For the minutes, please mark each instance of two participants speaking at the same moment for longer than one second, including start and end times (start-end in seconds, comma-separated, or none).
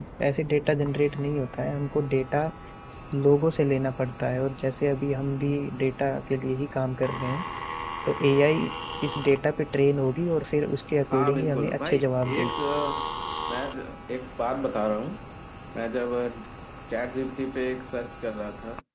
11.1-12.5